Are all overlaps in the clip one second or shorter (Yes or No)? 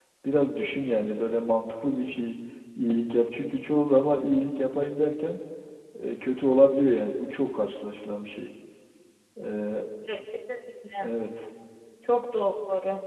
Yes